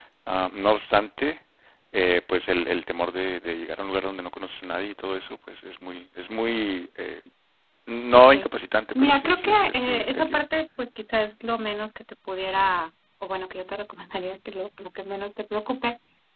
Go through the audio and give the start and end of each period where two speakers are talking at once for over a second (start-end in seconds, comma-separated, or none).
9.0-10.4